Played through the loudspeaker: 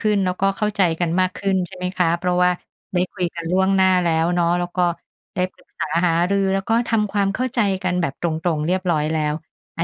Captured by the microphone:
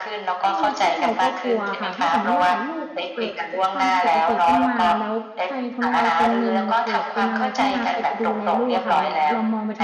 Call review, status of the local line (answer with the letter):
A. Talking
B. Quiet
A